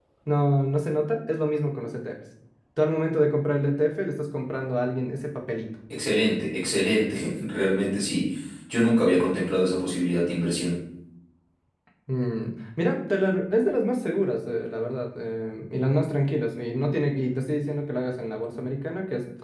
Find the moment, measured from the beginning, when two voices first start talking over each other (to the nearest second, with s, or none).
none